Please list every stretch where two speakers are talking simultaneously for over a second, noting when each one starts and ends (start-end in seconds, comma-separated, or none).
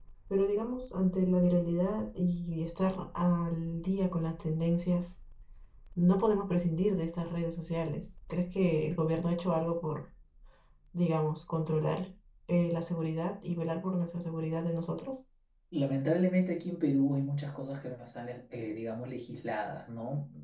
none